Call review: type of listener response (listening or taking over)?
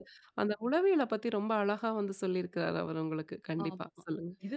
taking over